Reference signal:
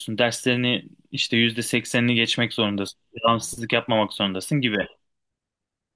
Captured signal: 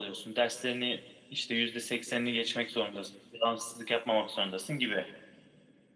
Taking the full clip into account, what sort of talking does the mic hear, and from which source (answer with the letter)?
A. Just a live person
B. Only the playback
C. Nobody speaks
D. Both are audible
B